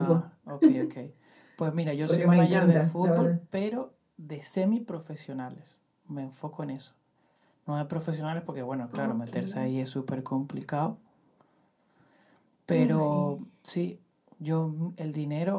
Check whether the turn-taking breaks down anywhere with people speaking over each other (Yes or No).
Yes